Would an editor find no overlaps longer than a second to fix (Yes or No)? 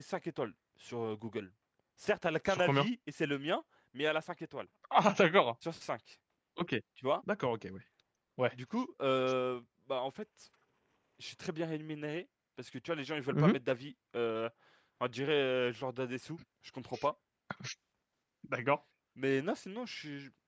Yes